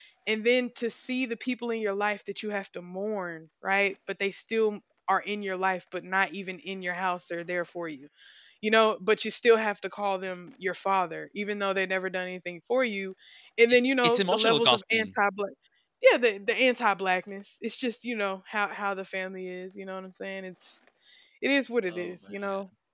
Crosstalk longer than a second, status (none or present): present